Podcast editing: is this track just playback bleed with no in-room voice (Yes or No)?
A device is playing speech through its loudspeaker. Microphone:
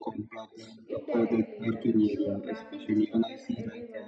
No